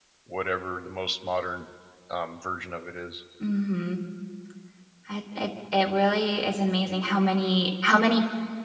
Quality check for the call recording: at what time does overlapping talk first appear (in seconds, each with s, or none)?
none